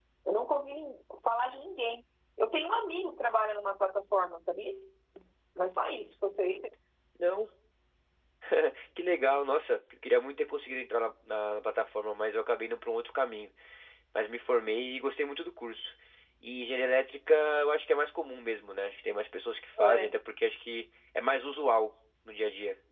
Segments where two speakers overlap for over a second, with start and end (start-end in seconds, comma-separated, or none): none